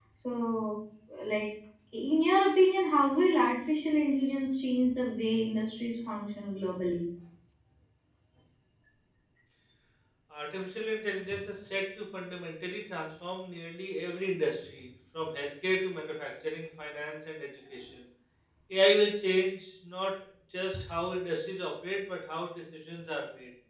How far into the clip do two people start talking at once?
none

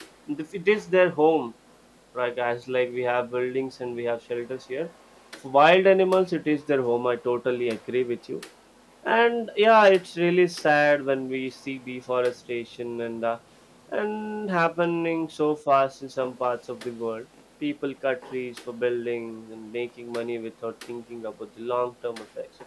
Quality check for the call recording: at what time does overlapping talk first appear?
none

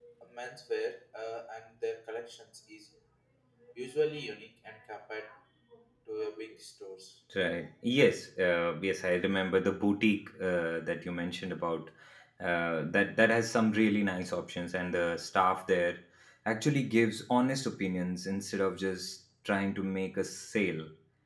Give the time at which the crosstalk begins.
none

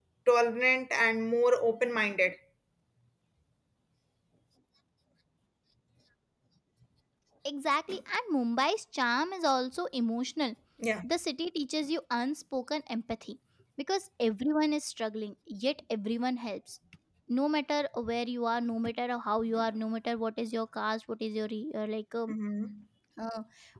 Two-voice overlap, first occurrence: none

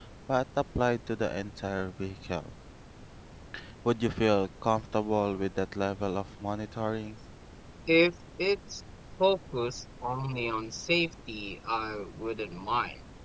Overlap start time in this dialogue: none

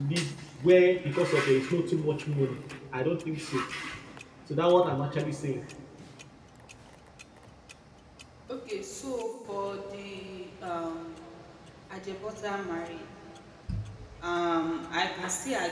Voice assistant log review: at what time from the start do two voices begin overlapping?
none

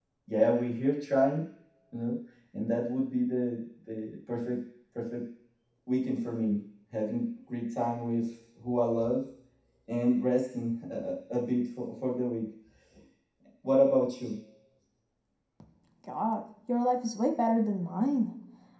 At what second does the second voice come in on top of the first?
none

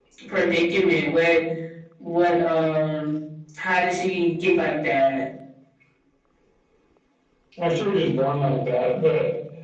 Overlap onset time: none

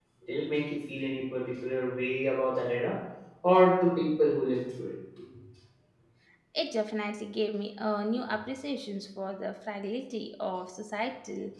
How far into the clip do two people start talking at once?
none

